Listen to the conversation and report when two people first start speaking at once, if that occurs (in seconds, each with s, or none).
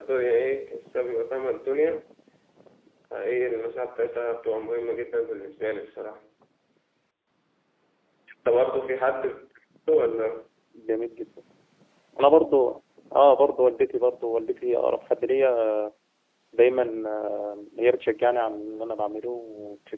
none